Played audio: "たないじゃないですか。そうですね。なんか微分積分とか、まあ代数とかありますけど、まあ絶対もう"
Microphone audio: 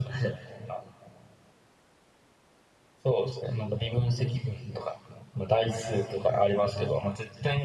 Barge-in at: none

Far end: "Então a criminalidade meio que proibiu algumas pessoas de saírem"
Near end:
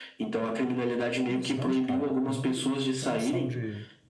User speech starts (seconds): 1.3 s

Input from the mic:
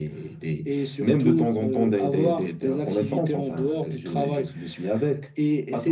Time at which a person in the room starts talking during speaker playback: none

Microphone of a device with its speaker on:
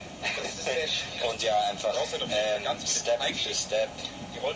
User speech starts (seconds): none

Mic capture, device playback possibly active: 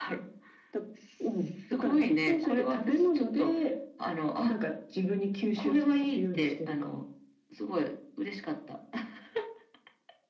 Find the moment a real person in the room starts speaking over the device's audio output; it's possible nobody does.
none

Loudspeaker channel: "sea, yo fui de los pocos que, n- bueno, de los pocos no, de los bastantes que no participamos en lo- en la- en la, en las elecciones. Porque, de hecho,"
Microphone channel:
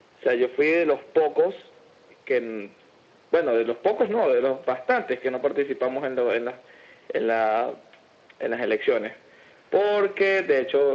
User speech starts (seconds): none

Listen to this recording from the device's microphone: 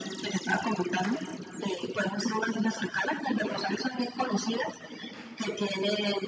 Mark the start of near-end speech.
none

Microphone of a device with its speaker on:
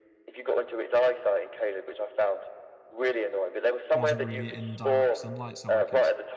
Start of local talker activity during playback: 3.9 s

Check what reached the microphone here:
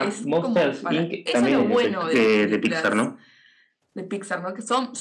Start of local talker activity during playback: none

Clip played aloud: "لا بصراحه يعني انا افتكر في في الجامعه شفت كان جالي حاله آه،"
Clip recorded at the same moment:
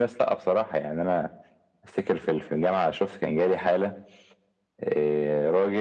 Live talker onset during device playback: none

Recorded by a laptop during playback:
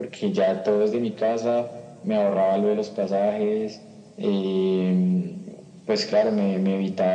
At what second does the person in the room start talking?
none

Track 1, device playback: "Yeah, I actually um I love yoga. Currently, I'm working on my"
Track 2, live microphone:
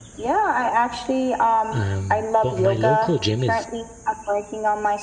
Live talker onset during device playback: 1.7 s

